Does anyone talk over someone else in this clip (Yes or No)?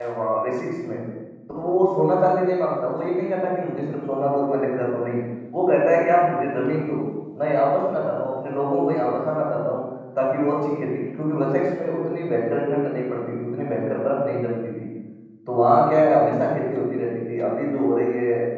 No